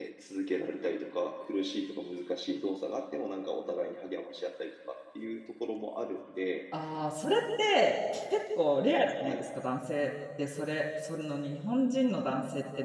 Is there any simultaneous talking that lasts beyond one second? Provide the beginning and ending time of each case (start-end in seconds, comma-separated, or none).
none